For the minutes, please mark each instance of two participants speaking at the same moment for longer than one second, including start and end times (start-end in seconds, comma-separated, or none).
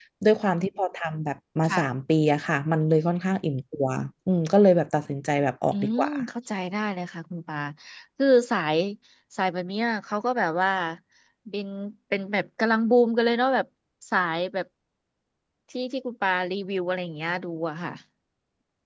none